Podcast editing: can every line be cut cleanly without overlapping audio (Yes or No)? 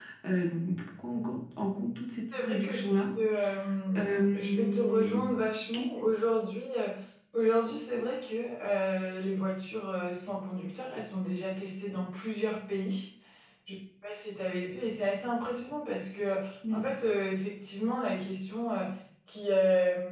No